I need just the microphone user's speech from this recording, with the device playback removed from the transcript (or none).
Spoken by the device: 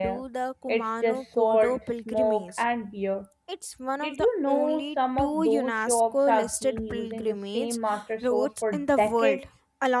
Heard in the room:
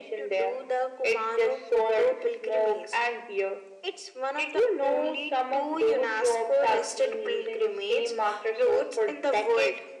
none